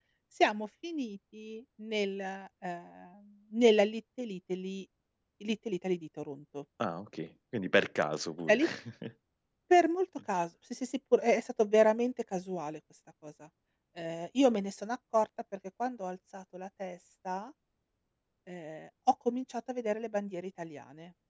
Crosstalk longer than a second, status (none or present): none